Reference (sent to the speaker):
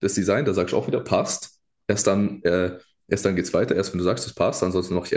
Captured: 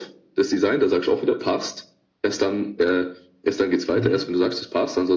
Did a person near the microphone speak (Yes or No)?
Yes